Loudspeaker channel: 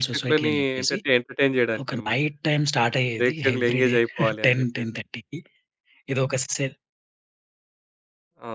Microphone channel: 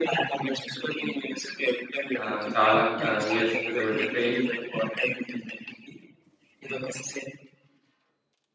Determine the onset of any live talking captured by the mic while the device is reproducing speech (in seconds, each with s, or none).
2.2 s